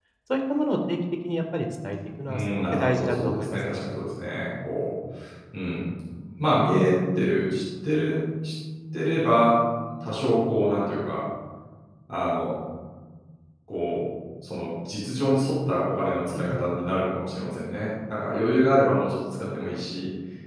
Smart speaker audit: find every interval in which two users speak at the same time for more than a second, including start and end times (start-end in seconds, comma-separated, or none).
2.3-3.6